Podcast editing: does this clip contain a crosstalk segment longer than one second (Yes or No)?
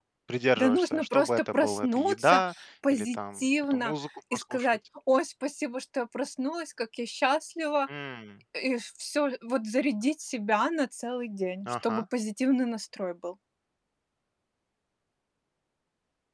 Yes